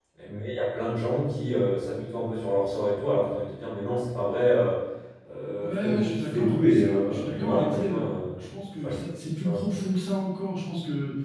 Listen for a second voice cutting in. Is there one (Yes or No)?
Yes